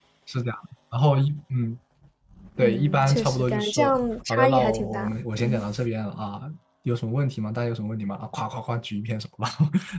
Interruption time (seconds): 3 s

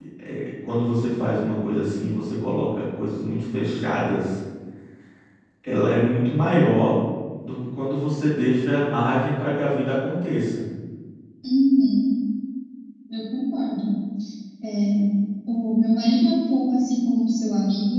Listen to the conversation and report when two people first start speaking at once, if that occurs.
none

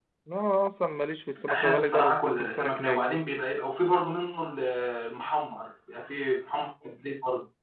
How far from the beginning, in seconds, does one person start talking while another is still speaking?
1 s

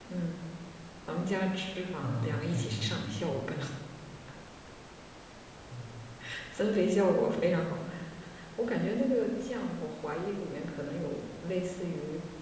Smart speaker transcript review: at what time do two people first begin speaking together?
2 s

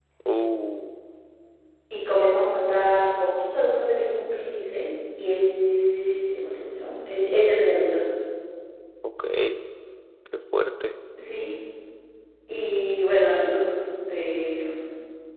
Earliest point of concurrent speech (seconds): none

